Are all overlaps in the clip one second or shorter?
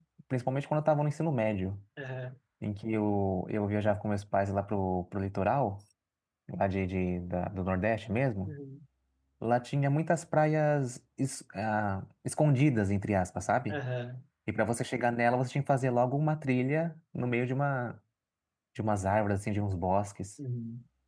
Yes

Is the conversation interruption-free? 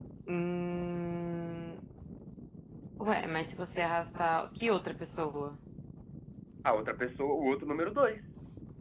Yes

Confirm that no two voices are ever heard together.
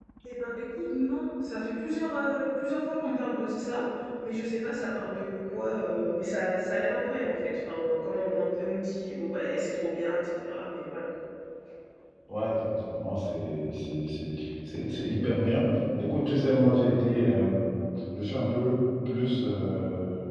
Yes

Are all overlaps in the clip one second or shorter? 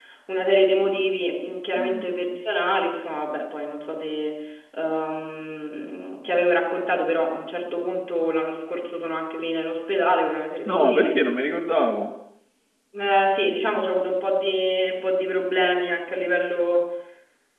Yes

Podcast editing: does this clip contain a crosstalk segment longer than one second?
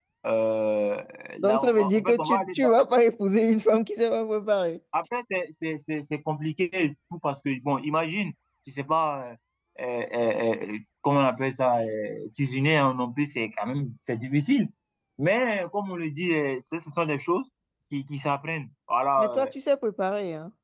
Yes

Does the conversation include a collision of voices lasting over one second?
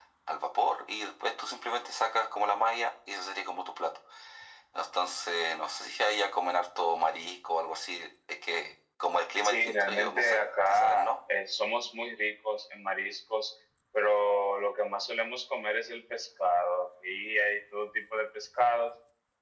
Yes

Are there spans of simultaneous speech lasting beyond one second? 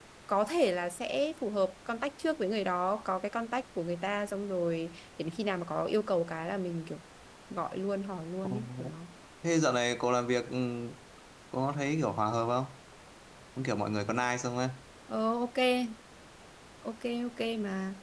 No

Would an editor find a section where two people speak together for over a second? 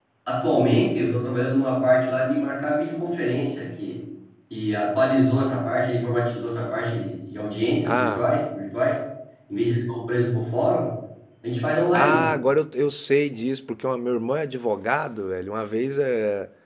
No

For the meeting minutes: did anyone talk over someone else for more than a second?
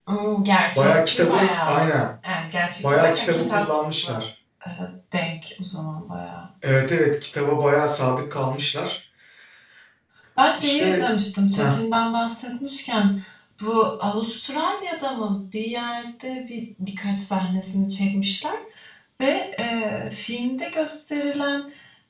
Yes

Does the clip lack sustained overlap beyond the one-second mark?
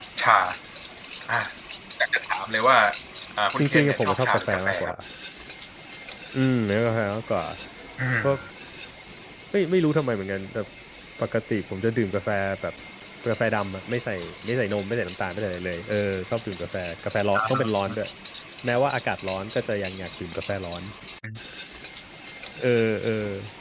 No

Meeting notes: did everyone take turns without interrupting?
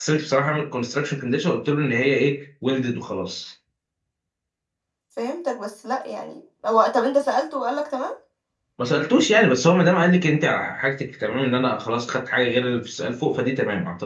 Yes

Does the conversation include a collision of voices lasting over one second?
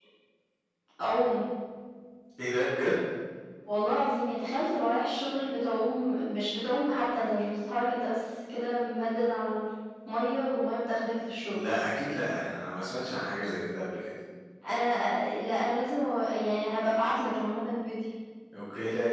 No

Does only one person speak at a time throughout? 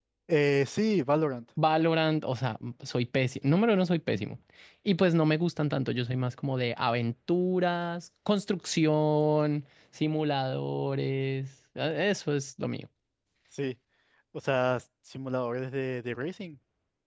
Yes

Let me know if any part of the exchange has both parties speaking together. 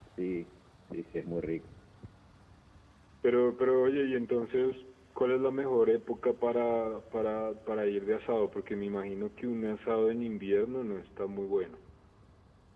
No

